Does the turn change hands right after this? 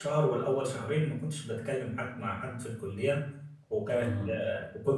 No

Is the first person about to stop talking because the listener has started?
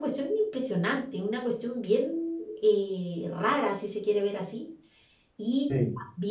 No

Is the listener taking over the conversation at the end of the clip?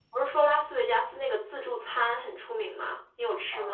Yes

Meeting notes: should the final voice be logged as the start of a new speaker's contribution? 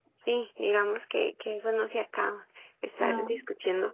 No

